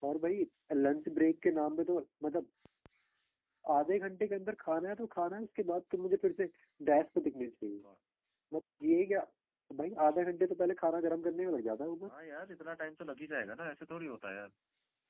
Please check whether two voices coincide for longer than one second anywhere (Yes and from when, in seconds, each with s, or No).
No